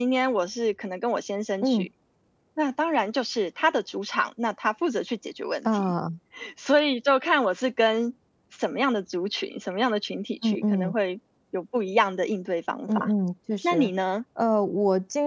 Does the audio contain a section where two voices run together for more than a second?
No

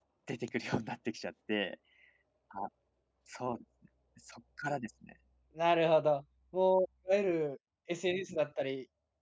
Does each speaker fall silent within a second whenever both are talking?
Yes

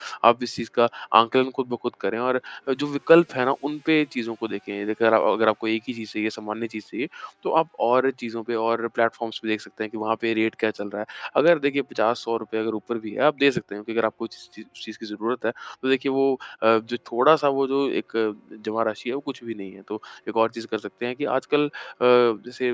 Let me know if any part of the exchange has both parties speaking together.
No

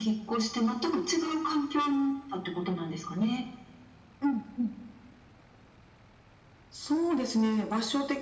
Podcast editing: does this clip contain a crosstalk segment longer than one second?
No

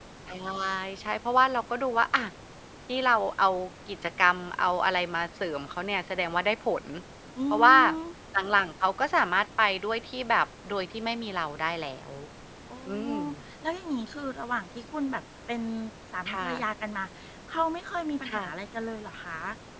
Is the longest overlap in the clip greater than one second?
No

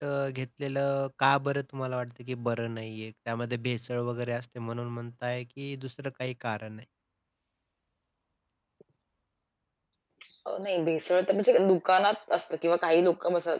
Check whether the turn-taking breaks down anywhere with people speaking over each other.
No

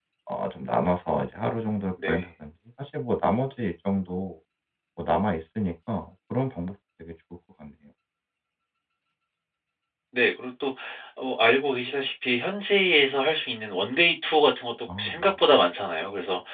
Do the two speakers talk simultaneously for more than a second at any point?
No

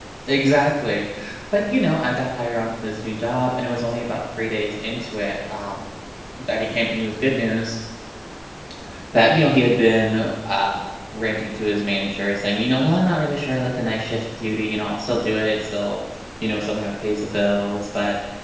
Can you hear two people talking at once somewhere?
No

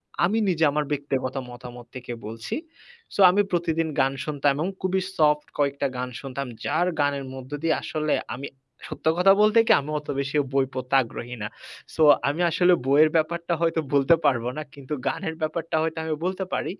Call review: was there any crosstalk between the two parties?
No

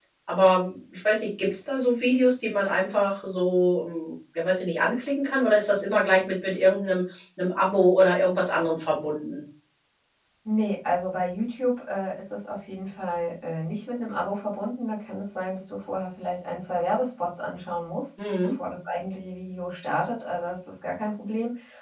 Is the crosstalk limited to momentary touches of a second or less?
Yes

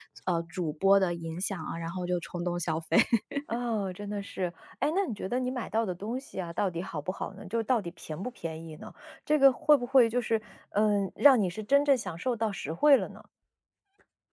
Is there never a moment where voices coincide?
Yes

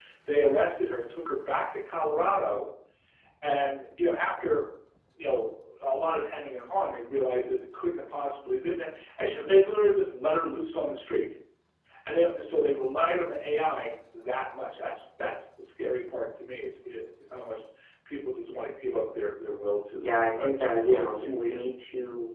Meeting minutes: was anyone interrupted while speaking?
Yes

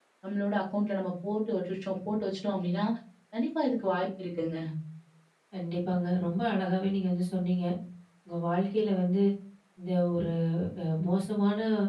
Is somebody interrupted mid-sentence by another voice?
No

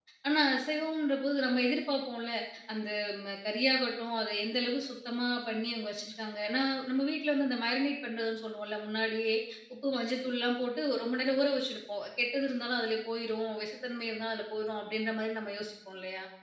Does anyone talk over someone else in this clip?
No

